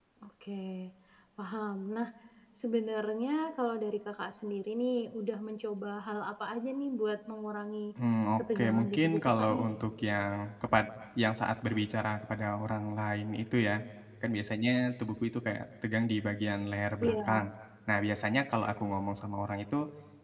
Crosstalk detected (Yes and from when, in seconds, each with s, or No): Yes, from 8.4 s